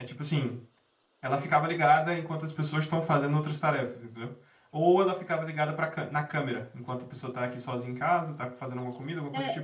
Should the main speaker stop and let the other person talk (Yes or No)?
Yes